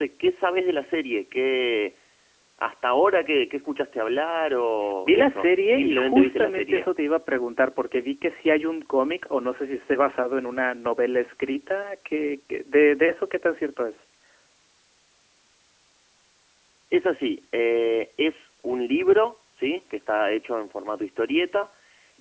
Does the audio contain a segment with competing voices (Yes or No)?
Yes